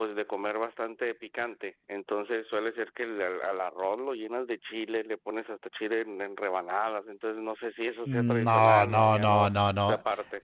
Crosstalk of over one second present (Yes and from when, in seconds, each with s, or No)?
Yes, from 8.1 s